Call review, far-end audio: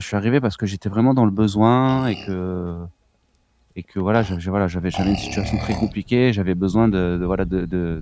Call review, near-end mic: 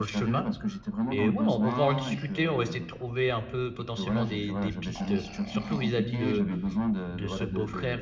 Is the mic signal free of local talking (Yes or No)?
No